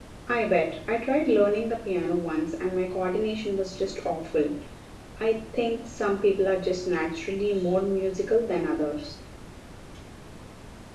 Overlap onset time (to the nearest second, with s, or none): none